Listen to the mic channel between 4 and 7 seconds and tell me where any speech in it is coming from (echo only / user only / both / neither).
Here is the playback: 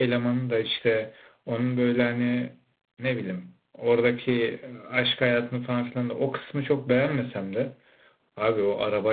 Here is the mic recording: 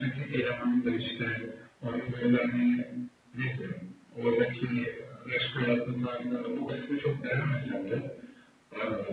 echo only